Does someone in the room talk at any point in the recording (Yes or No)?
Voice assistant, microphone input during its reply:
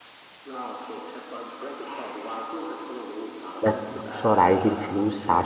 Yes